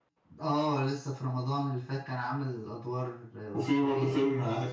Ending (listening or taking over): taking over